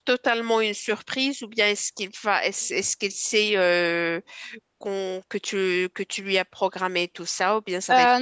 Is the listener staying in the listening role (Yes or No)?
No